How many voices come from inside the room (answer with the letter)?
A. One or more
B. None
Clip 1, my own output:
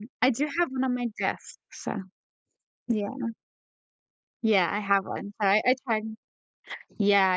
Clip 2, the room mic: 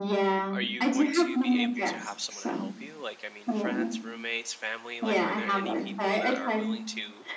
A